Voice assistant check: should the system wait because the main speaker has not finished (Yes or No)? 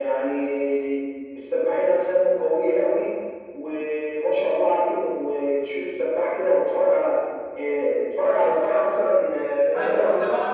No